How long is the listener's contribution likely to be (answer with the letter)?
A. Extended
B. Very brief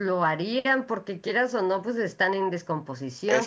B